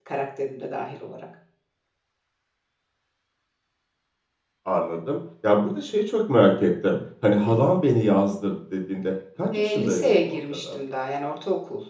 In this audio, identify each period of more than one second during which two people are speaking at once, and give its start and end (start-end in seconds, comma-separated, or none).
9.5-10.8